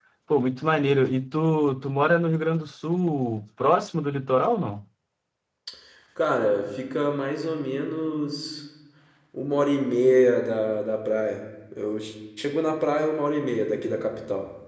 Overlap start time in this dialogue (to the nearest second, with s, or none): none